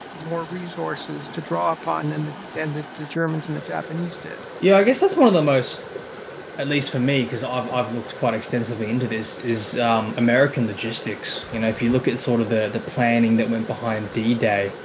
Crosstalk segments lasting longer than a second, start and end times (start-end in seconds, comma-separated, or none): none